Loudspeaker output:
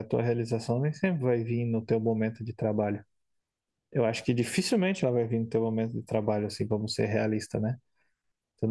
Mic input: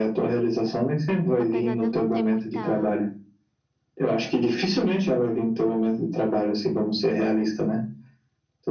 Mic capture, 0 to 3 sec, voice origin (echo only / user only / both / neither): both